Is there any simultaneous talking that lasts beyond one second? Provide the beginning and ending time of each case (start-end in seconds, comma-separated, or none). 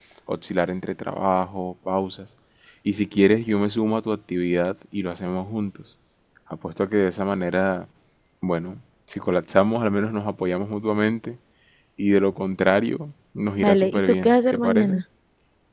13.6-15.0